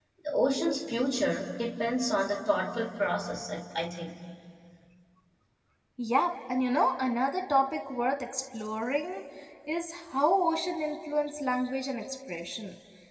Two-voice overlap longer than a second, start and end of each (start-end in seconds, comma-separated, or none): none